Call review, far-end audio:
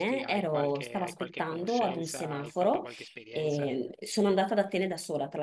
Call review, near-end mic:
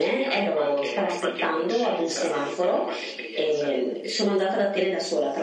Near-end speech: none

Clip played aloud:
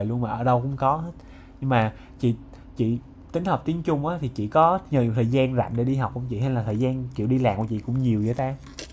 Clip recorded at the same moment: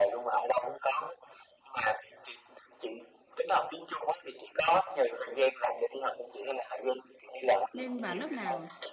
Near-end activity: present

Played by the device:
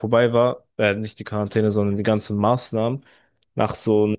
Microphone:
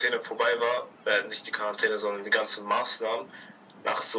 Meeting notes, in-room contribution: none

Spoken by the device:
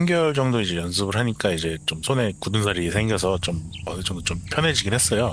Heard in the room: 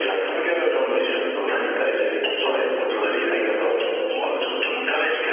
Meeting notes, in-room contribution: present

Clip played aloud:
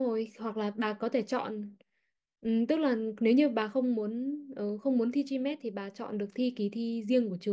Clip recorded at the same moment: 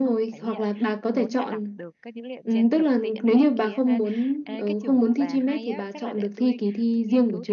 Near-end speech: present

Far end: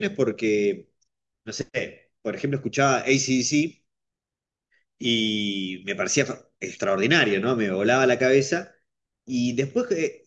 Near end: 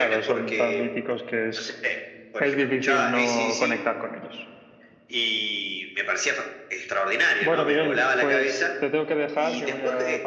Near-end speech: present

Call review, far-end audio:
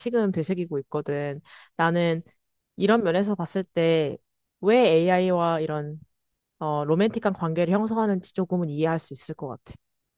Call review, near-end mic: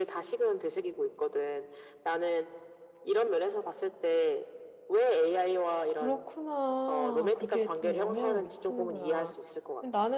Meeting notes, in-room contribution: present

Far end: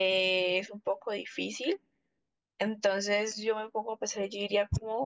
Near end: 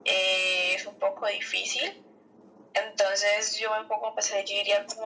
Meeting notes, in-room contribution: none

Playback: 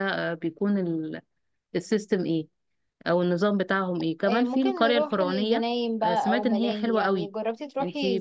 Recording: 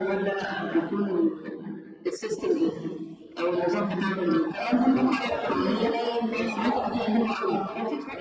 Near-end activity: none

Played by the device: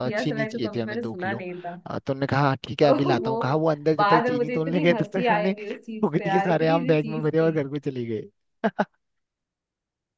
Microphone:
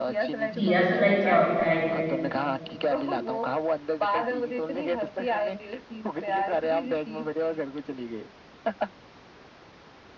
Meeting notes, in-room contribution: present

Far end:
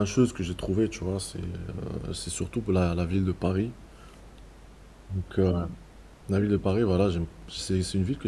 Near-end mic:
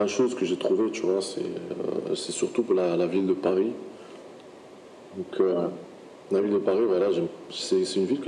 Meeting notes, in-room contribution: none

